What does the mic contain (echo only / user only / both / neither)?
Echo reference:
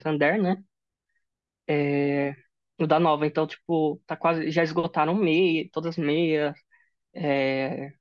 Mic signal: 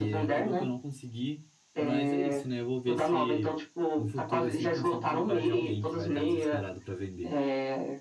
both